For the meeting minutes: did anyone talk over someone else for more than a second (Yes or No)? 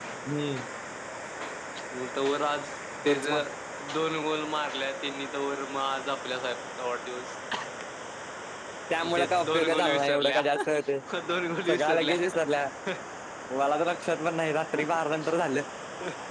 Yes